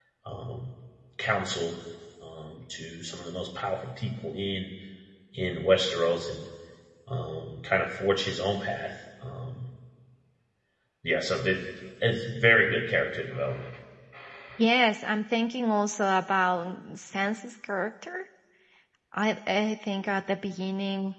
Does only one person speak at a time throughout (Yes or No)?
Yes